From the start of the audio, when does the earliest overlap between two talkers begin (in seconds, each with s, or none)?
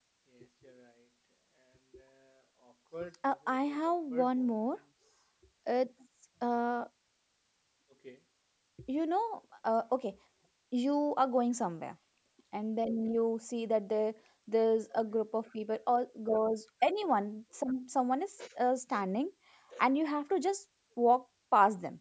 3.3 s